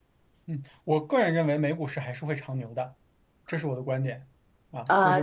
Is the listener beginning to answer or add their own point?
Yes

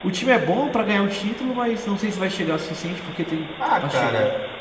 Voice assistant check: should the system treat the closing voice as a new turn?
Yes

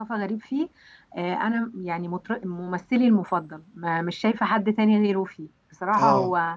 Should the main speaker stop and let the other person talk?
No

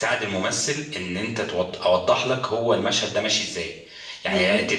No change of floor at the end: Yes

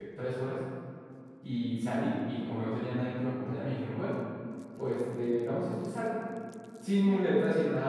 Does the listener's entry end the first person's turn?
No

